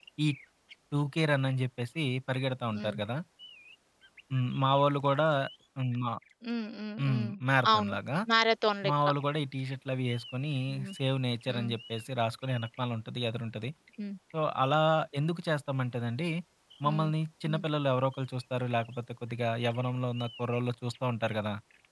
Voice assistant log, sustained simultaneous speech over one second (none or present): none